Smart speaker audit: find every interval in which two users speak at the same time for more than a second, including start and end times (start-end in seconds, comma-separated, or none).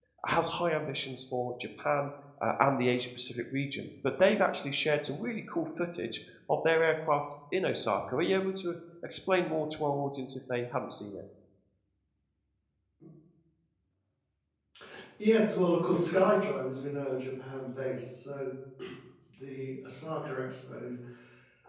none